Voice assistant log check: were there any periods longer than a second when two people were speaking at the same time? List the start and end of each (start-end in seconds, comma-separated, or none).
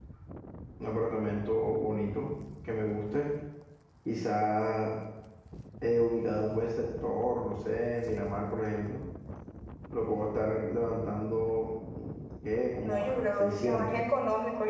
12.8-14.0